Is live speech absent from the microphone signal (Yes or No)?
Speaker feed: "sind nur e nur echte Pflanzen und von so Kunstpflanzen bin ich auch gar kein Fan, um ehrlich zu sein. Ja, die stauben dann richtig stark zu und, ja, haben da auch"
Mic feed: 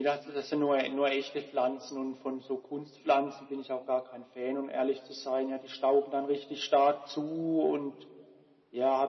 Yes